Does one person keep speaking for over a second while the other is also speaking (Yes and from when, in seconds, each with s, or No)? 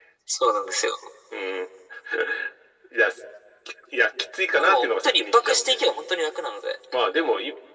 Yes, from 4.6 s